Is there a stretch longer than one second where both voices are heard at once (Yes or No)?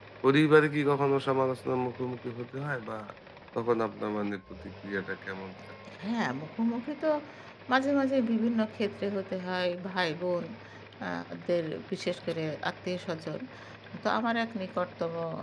No